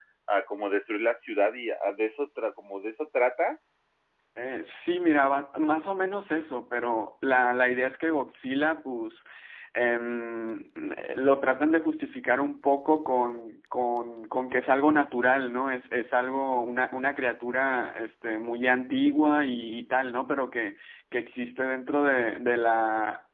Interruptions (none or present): none